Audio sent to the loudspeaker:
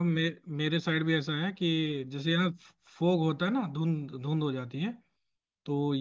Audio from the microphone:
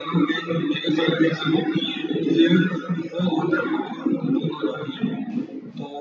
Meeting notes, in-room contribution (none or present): none